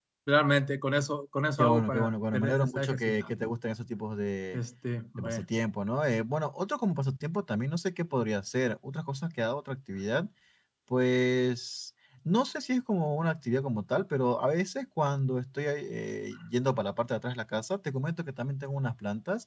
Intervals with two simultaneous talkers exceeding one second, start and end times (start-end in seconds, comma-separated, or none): 1.6-3.1